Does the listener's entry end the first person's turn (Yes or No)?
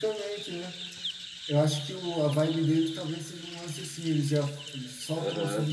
No